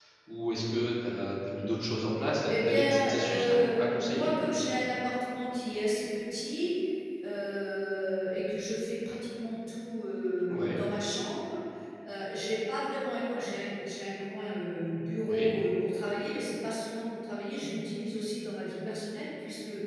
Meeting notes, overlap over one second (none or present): present